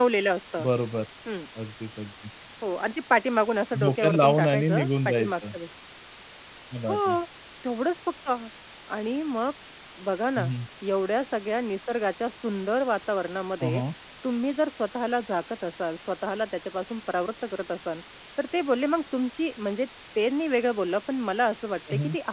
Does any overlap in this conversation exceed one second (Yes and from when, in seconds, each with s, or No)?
Yes, from 3.8 s